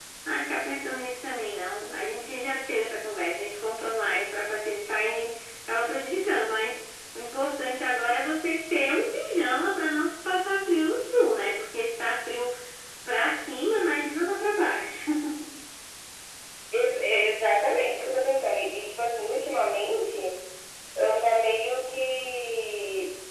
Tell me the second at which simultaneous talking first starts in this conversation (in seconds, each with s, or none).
none